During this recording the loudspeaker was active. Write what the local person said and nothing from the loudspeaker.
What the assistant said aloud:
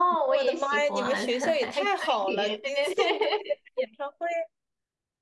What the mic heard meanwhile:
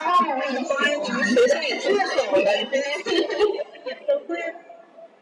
none

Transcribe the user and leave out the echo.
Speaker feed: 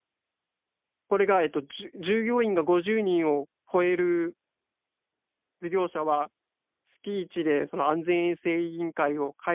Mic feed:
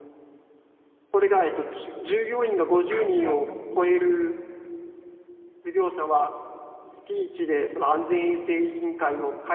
はいはいはい。

